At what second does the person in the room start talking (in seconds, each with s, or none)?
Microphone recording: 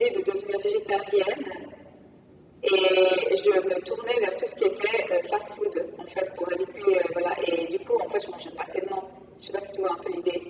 none